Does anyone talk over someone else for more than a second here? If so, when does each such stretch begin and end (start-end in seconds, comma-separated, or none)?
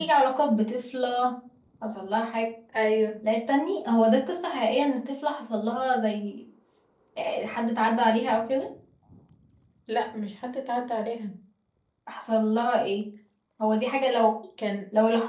none